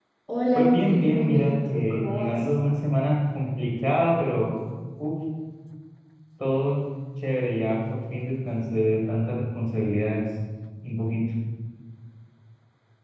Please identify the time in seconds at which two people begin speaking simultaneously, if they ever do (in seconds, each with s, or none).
0.6 s